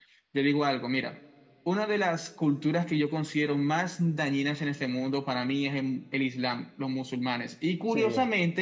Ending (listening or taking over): listening